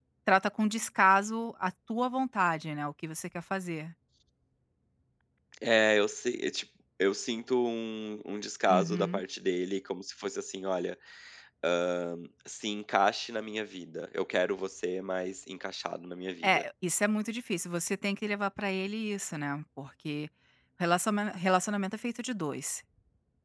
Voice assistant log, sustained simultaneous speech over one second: none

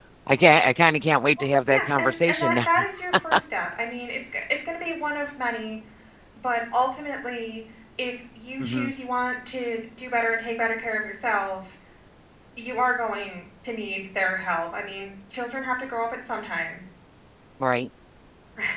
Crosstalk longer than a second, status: present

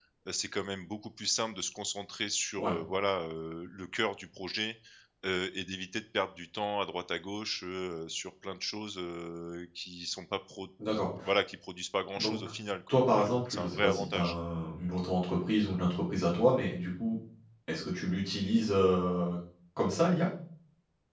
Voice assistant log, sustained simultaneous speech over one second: present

